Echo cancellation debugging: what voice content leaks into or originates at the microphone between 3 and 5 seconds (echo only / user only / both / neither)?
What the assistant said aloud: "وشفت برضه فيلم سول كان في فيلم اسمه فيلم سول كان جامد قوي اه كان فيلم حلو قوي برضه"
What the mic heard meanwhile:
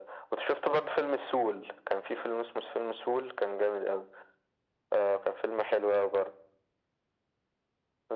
echo only